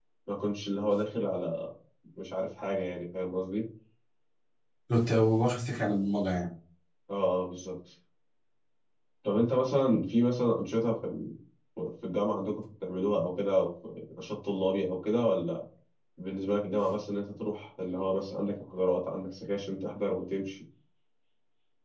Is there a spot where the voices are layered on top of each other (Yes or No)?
No